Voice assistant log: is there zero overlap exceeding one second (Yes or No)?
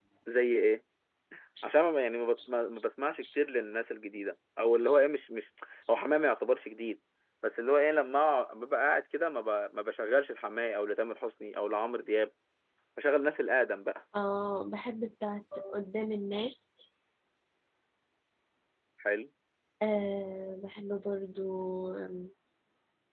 Yes